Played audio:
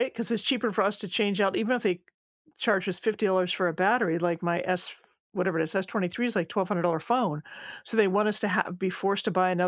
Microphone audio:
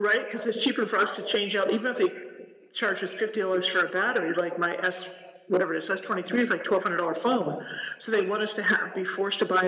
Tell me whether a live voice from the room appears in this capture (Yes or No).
No